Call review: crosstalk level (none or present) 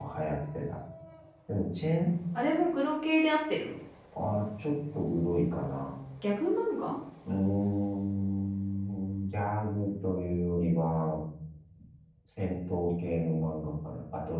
none